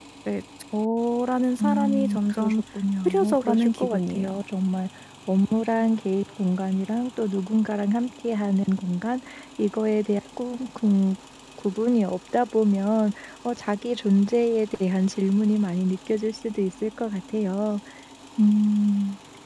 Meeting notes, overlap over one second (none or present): present